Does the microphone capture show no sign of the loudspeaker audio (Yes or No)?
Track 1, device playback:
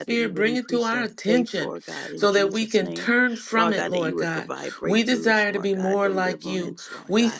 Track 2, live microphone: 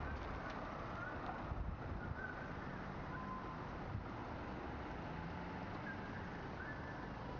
Yes